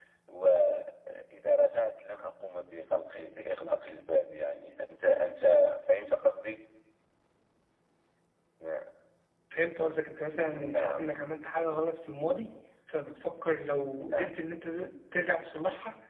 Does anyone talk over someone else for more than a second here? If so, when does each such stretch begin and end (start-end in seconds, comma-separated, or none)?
none